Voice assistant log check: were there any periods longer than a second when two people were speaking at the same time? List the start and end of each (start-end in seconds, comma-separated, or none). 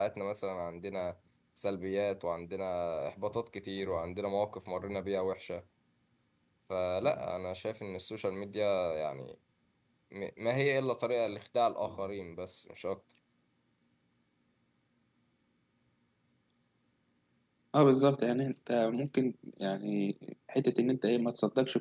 none